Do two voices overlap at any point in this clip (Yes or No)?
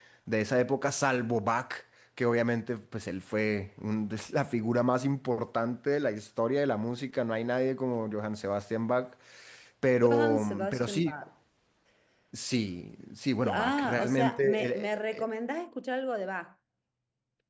Yes